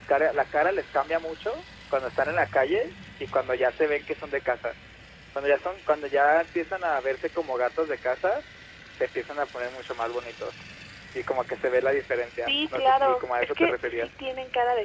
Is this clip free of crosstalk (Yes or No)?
No